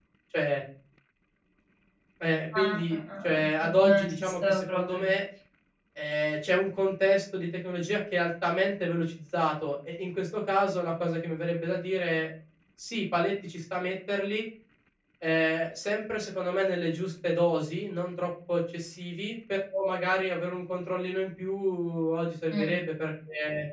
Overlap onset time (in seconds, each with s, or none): 2.5 s